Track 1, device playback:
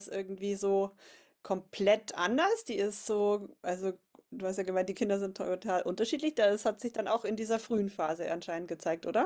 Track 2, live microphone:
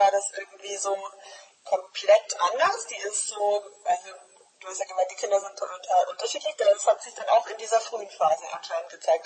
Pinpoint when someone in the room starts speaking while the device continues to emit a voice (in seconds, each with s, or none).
none